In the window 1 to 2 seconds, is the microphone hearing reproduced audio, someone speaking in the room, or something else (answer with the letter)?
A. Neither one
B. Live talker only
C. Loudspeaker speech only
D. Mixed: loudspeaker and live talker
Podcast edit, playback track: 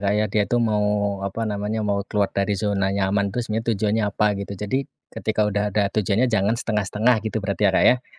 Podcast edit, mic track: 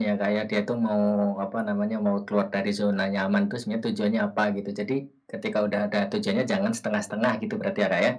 C